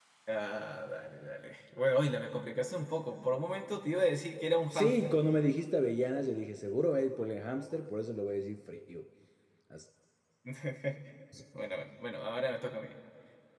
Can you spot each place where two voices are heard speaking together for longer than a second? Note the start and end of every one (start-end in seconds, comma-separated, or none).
none